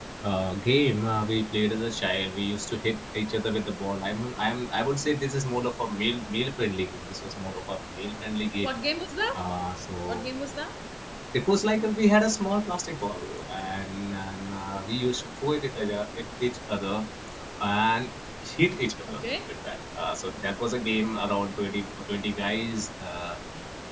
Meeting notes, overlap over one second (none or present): none